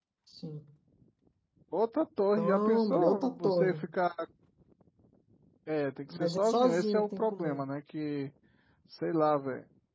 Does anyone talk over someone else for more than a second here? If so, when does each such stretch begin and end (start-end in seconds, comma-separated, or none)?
2.4-3.8, 6.1-7.6